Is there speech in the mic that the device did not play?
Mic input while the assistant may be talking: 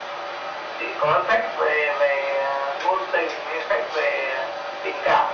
No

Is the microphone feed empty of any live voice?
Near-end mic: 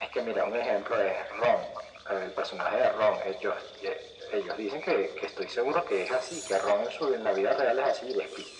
Yes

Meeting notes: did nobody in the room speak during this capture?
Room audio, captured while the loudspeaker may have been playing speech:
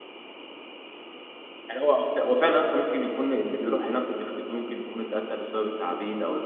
No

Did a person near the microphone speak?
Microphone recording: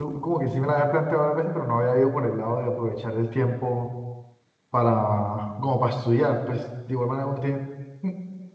Yes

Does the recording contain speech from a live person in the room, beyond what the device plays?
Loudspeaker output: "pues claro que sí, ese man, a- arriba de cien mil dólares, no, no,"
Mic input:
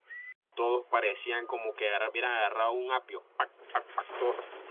Yes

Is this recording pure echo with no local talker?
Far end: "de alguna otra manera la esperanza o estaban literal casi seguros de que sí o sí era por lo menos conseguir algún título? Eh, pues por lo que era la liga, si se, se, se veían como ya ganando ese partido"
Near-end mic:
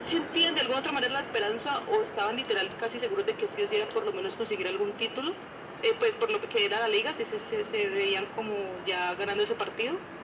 Yes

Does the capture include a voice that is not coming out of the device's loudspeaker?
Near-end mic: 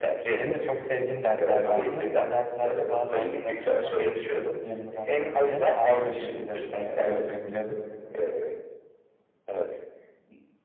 Yes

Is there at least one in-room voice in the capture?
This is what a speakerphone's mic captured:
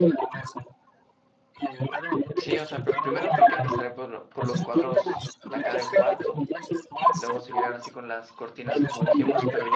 Yes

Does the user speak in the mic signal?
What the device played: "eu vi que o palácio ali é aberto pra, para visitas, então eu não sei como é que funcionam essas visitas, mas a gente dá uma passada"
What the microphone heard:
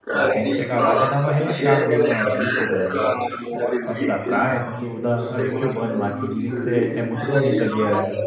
Yes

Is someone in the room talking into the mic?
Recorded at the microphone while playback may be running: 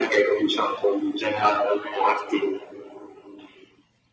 No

